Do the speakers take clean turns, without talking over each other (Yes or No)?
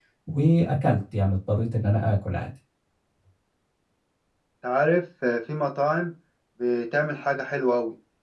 Yes